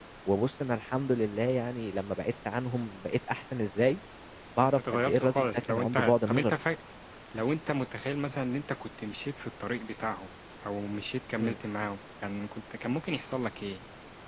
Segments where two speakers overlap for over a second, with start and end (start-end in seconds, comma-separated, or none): 4.6-6.5